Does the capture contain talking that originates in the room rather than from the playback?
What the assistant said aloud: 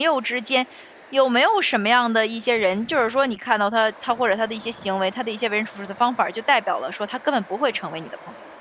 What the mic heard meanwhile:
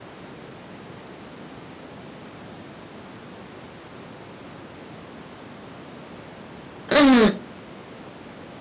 Yes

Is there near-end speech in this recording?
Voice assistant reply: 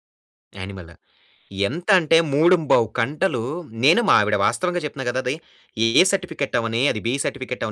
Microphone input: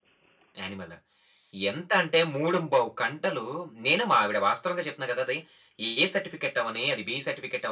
No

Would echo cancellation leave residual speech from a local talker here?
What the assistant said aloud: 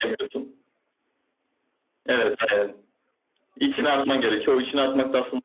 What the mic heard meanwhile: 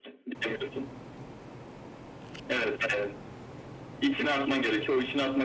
No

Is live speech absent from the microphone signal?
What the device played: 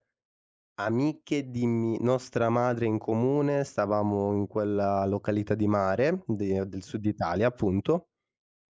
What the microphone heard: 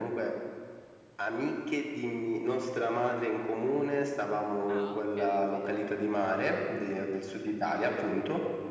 No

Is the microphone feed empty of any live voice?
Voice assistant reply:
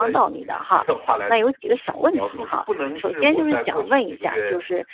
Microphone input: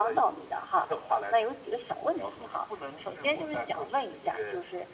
Yes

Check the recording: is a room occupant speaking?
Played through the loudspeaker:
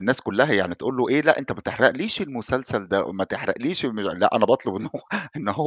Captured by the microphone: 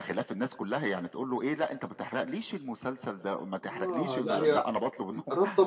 Yes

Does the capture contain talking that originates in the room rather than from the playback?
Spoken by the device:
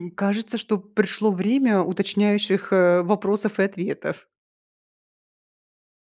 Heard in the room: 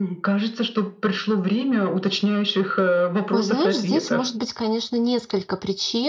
Yes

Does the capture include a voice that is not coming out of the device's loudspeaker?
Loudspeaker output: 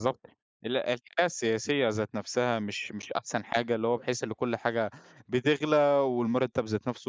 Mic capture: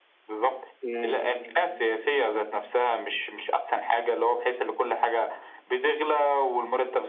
Yes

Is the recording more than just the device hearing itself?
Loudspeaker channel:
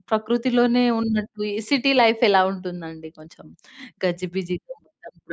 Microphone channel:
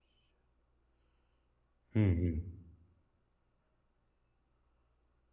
Yes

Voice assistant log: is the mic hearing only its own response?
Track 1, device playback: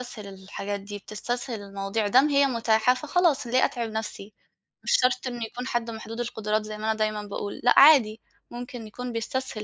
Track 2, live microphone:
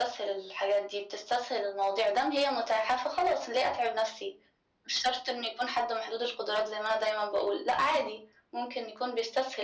Yes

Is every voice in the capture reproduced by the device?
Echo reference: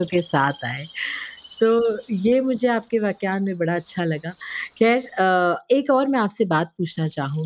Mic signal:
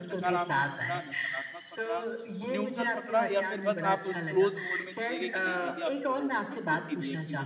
No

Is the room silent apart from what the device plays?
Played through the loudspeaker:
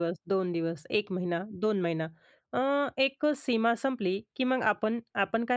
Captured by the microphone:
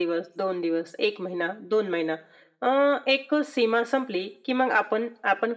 Yes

